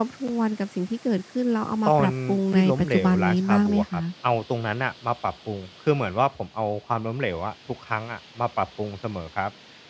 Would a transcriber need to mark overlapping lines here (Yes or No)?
Yes